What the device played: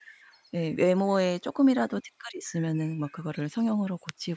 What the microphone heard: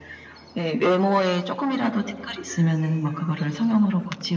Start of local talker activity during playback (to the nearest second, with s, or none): none